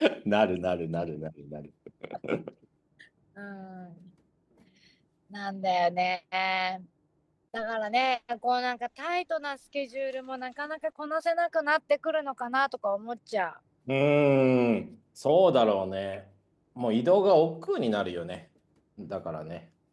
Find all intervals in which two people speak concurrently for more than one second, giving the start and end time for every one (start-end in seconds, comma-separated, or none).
none